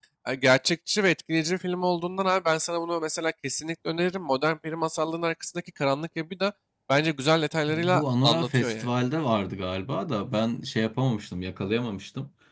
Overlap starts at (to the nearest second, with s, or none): 8 s